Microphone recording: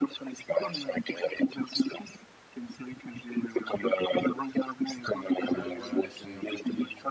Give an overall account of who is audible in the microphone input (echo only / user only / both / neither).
both